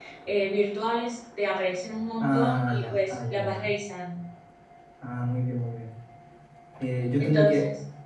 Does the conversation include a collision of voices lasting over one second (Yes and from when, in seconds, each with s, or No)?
Yes, from 2.2 s